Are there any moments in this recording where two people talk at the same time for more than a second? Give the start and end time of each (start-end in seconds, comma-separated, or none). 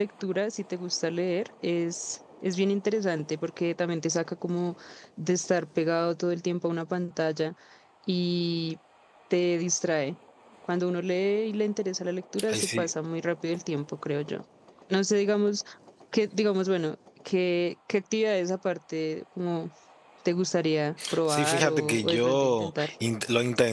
21.3-22.9